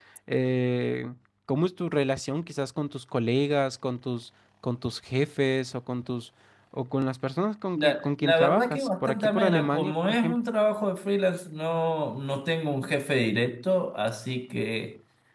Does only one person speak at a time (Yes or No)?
No